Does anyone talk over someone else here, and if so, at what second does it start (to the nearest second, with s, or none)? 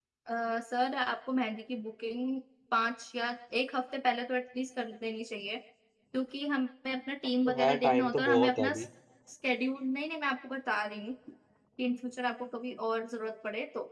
7 s